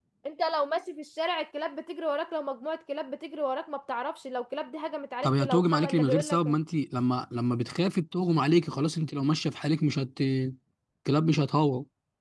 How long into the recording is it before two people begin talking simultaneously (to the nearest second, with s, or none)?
5 s